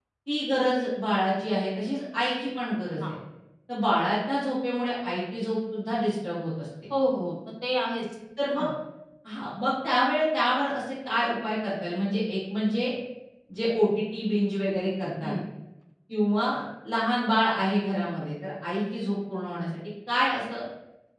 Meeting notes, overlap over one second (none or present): none